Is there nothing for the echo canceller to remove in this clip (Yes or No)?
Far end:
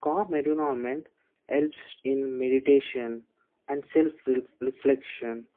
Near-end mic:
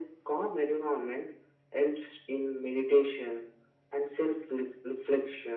No